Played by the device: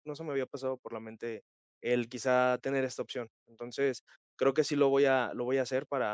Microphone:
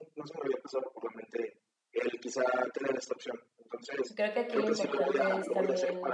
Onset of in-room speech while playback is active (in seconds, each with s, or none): 4.1 s